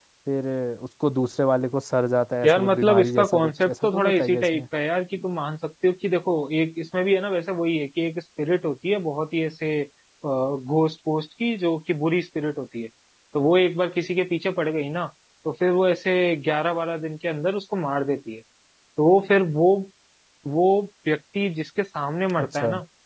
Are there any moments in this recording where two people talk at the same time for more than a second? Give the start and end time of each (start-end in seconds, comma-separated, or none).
2.5-4.6